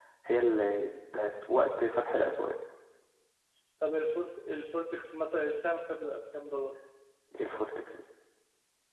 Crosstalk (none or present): none